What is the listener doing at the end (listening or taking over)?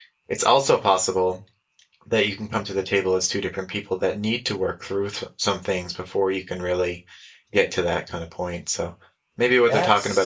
listening